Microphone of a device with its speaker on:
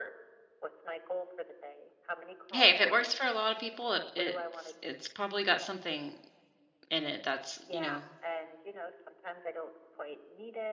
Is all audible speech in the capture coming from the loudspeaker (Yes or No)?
No